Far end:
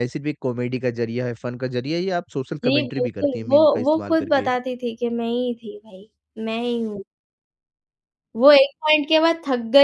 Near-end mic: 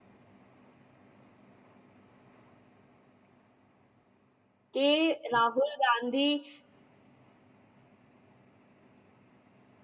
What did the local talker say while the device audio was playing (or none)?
कि राहुल गांधी